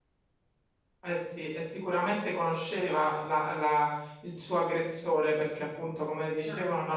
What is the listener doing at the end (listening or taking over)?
listening